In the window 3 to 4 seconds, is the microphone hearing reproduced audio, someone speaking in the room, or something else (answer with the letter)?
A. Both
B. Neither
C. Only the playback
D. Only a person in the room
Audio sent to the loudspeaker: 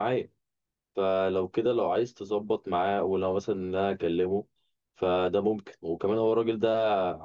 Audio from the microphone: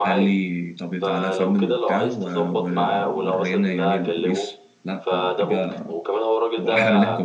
A